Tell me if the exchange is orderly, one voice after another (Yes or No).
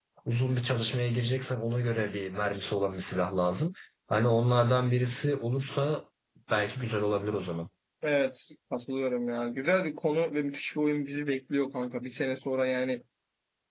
Yes